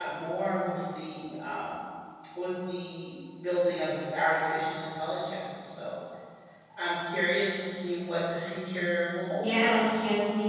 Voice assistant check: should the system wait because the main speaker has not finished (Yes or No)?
No